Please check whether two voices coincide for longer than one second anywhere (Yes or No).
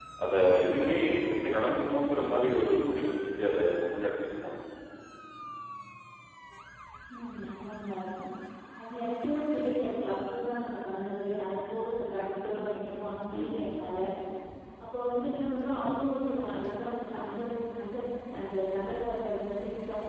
No